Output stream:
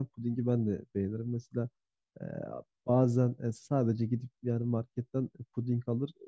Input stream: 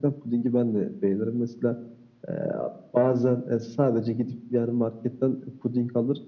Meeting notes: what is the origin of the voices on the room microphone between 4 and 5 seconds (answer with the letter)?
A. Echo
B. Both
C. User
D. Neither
A